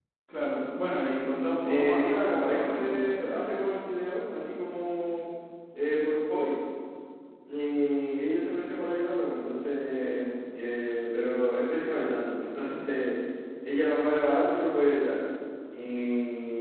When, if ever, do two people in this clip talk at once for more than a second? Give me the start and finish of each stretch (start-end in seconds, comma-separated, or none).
1.6-3.4